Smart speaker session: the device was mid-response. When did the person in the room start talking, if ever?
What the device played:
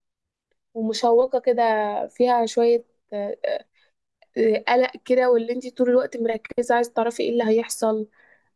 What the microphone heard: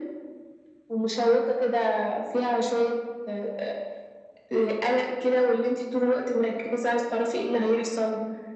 none

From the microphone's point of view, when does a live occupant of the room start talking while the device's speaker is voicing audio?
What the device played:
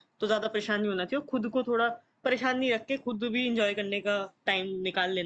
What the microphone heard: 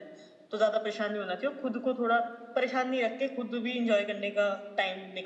none

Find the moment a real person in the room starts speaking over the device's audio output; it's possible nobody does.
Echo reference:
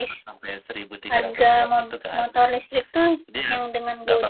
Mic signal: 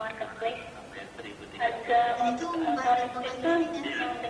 2.1 s

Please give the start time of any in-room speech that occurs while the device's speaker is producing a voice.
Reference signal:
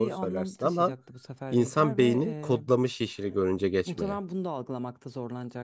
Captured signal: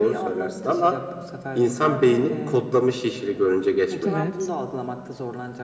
4.0 s

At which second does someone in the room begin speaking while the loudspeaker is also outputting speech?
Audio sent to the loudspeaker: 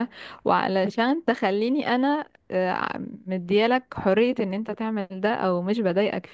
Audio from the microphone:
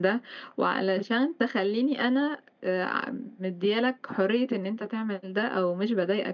none

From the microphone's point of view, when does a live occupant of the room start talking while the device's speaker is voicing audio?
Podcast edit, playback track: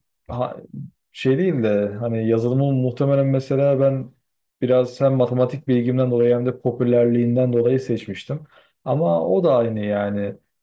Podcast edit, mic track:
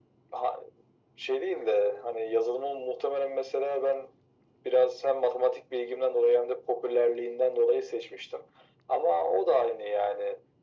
none

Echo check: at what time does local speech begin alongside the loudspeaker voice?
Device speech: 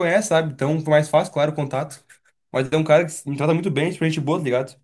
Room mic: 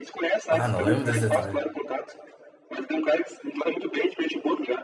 0.5 s

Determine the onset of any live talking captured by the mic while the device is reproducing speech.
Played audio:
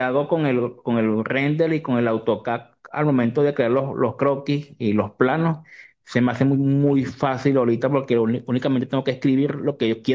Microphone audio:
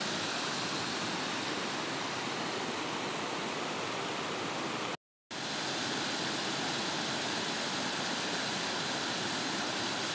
none

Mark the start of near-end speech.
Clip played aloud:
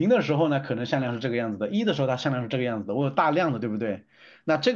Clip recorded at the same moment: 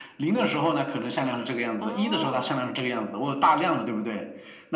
1.8 s

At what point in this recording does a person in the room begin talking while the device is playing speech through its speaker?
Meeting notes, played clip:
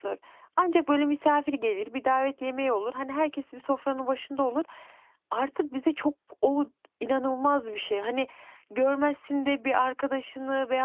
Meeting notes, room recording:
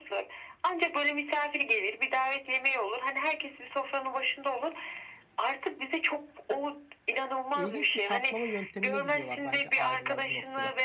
7.5 s

